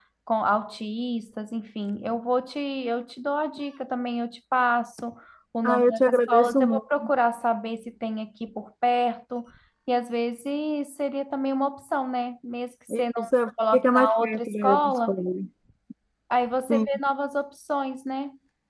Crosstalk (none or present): present